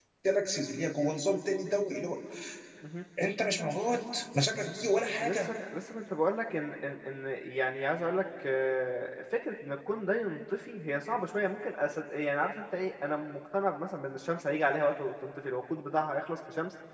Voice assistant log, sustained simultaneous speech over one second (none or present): none